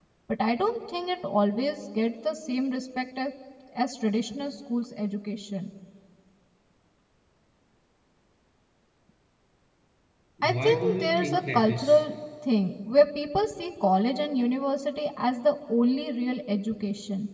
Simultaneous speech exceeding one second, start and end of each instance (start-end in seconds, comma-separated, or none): 10.4-12.0